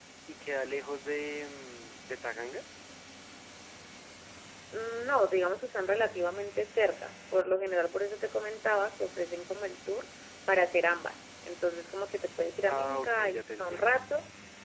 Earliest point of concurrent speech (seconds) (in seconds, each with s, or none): 12.7 s